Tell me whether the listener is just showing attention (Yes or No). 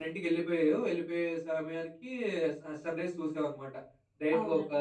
Yes